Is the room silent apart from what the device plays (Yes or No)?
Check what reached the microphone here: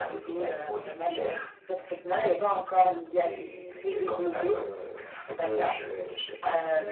No